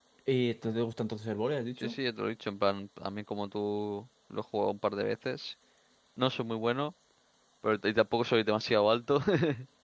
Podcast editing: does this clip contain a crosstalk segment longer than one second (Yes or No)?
No